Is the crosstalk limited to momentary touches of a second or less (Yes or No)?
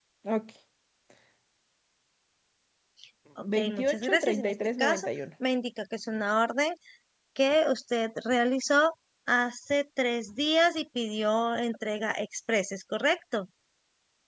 No